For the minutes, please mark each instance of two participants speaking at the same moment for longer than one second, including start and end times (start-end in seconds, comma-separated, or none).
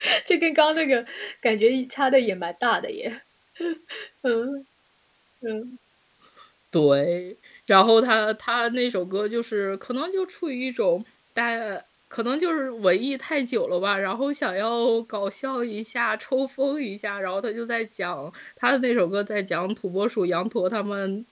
none